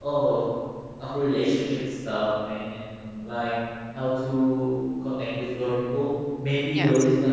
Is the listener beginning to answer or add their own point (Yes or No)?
No